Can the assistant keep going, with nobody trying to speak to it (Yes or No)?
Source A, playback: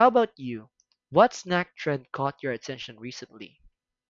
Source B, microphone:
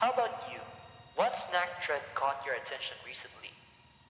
Yes